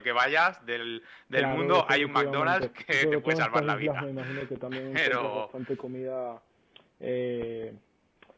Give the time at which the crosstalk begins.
1.4 s

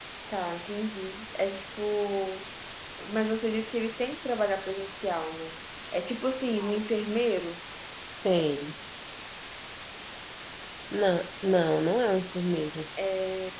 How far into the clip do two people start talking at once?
none

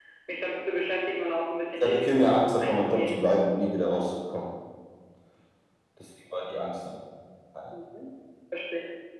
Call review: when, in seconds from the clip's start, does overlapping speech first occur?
1.8 s

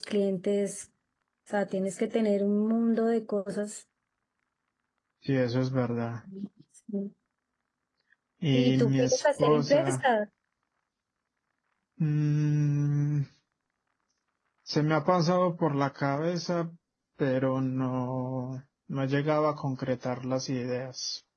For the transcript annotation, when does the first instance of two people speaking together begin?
8.5 s

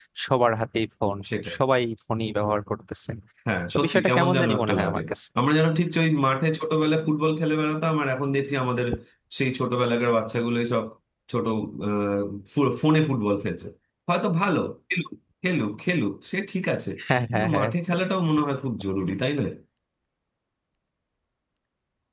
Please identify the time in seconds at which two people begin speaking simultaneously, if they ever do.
3.8 s

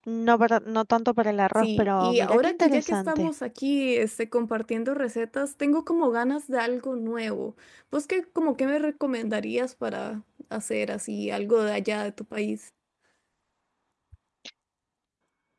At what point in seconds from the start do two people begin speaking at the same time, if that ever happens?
1.5 s

